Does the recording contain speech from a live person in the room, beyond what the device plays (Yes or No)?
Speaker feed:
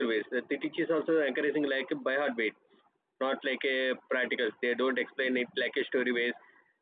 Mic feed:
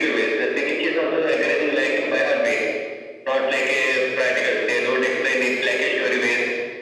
No